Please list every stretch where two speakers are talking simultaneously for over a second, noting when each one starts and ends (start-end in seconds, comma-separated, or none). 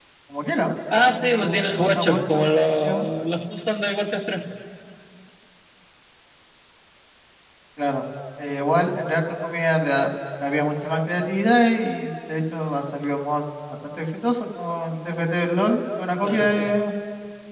1.1-2.4